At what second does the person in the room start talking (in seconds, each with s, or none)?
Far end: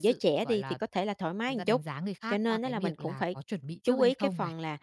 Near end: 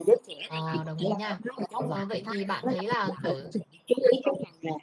0.5 s